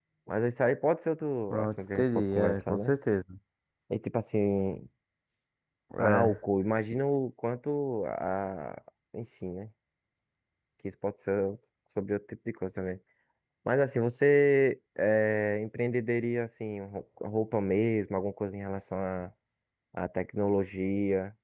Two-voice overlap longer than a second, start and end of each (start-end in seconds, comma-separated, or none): 1.5-2.9